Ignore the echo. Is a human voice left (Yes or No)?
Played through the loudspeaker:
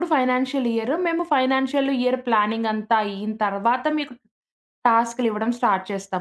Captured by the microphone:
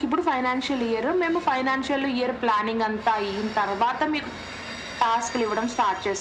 No